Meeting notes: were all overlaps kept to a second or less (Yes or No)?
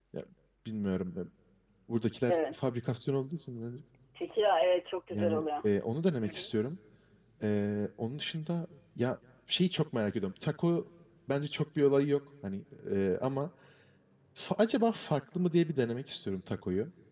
Yes